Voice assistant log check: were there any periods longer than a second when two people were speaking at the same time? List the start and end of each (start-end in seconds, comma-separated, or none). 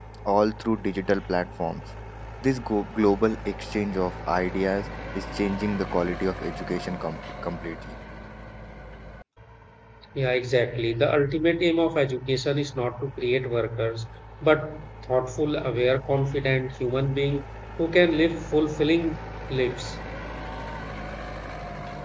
none